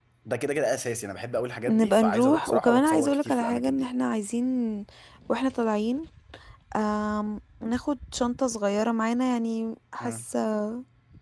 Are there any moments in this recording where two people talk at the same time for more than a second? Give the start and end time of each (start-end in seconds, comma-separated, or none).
1.7-3.9